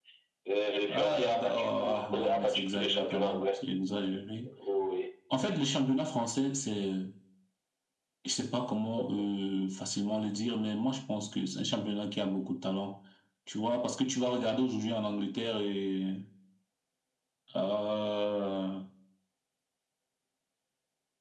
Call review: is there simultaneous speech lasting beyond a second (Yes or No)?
Yes